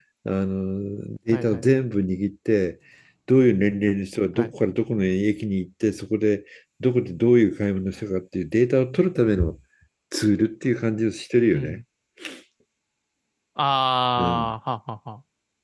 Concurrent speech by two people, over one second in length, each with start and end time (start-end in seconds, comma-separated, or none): none